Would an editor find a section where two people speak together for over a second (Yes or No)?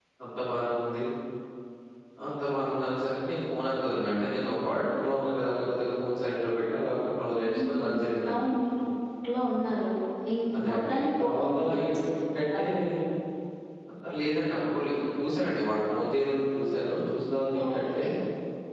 Yes